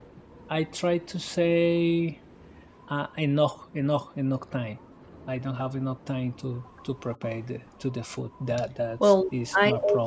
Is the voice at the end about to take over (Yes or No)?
Yes